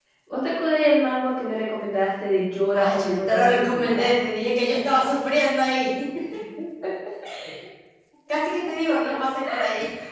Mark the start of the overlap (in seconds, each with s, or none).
2.7 s